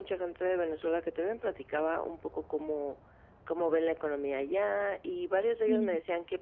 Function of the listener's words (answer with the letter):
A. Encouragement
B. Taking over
A